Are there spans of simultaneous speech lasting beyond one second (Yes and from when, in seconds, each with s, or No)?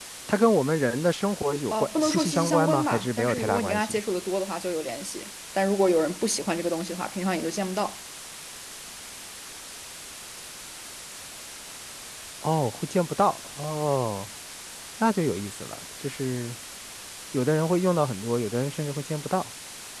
Yes, from 1.7 s